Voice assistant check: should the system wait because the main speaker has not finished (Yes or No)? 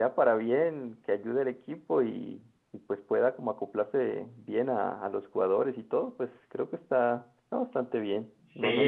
No